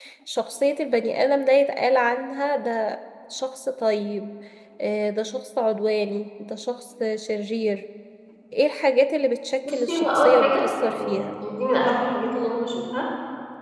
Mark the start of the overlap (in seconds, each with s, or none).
9.6 s